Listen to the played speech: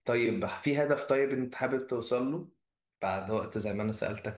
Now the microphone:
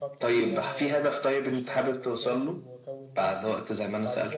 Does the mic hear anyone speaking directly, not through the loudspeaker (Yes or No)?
Yes